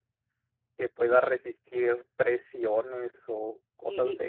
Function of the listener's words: taking over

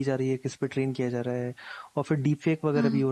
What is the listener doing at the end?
listening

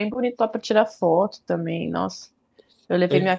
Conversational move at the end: listening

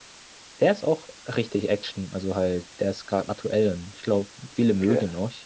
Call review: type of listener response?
listening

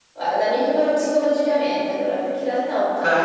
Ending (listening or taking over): listening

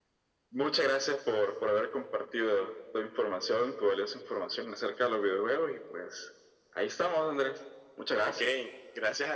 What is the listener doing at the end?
taking over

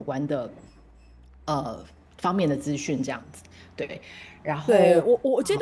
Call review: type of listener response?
taking over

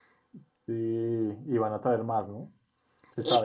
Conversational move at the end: taking over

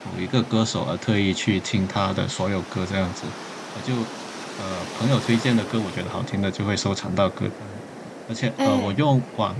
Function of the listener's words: listening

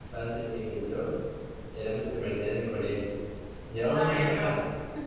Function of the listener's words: listening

